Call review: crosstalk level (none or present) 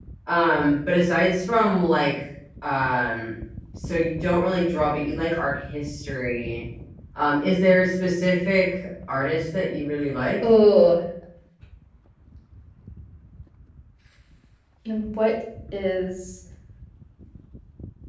none